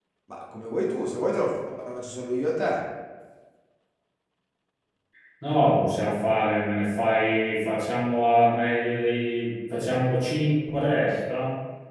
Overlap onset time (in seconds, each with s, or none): none